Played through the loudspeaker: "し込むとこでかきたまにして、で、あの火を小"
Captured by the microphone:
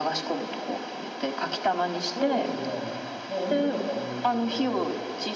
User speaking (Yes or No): Yes